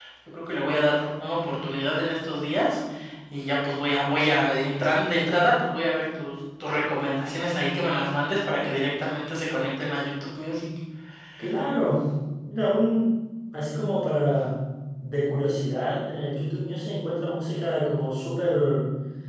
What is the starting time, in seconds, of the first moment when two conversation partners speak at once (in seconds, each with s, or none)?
none